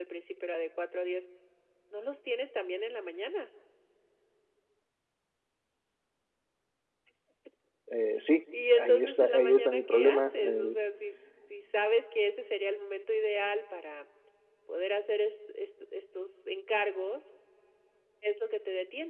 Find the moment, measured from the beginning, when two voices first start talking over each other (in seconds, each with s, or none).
8.8 s